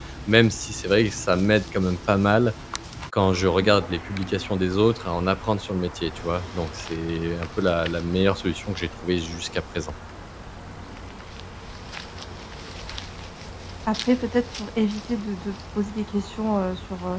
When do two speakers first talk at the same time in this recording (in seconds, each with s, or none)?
none